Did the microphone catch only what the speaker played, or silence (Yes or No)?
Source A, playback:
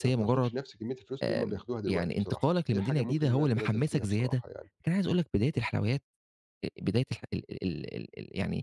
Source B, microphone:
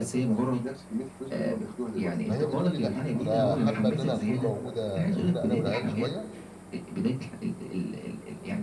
No